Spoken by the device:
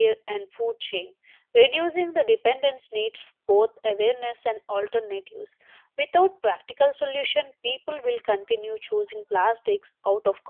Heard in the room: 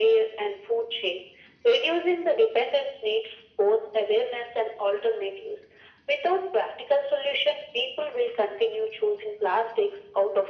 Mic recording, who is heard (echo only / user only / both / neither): echo only